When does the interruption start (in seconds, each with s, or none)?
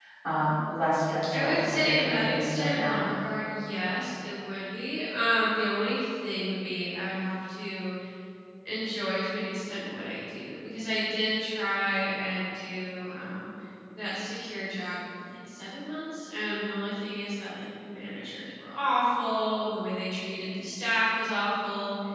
1.3 s